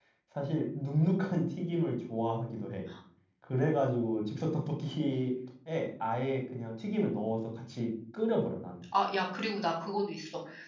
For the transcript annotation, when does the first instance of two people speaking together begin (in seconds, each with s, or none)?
none